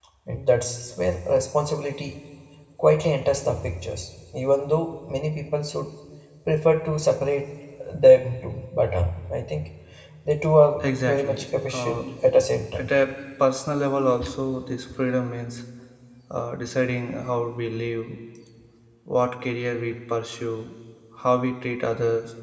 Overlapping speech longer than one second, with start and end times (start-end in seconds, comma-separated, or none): 10.8-12.0